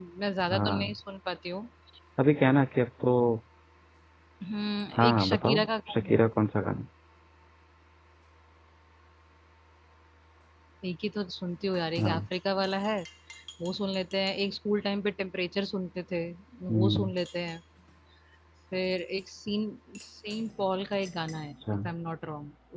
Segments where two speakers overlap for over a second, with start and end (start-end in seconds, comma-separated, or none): 5.0-6.2